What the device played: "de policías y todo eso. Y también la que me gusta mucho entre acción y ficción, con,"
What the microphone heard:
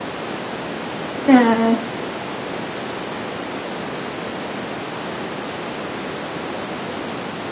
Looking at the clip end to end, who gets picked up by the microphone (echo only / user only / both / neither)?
user only